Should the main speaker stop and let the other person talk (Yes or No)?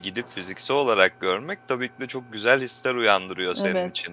No